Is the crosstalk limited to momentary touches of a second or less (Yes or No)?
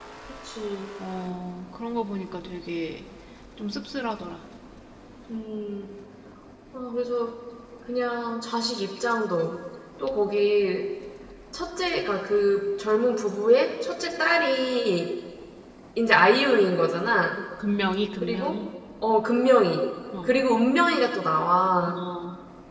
Yes